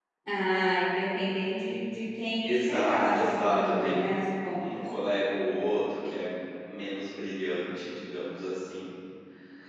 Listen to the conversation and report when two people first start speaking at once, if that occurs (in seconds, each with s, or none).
2.5 s